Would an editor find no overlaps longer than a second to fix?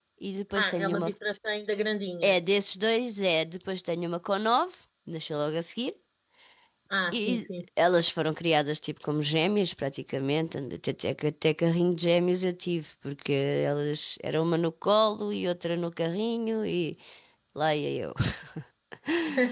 Yes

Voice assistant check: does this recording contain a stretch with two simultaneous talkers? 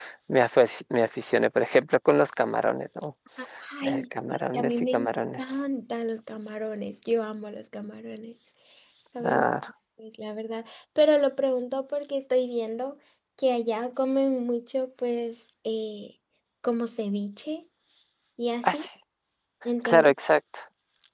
Yes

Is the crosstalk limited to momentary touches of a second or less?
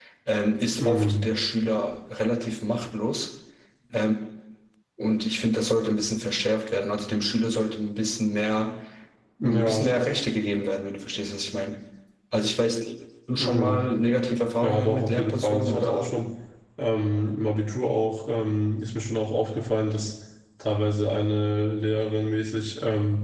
No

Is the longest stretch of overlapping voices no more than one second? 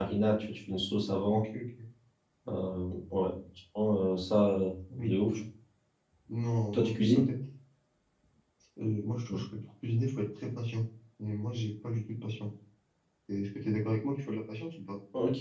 Yes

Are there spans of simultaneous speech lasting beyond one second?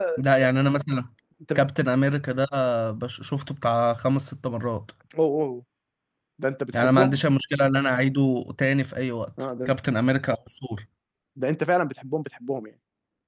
No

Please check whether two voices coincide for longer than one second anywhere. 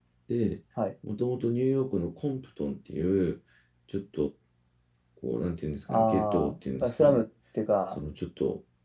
Yes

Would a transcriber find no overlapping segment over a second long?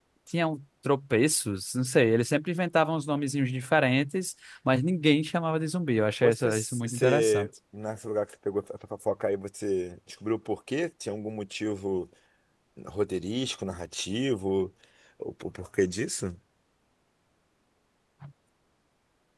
No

